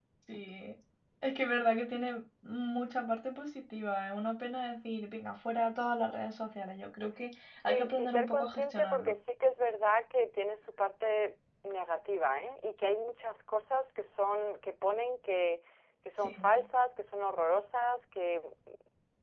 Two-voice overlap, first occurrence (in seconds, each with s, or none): 7.6 s